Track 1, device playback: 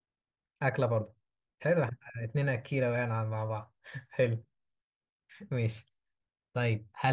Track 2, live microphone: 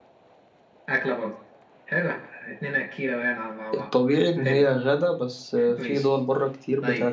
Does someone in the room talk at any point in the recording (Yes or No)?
Yes